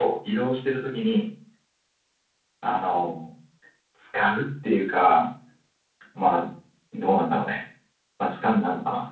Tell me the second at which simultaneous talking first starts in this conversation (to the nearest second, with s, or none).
none